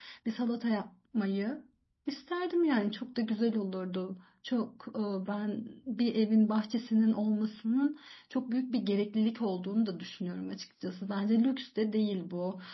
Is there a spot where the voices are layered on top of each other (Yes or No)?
No